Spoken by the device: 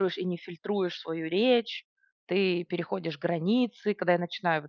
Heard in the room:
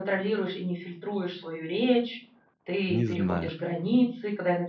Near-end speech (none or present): present